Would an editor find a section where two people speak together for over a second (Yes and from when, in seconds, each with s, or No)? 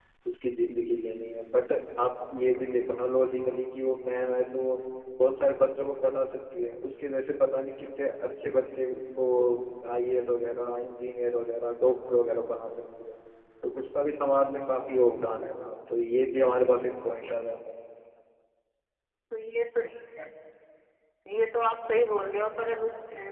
No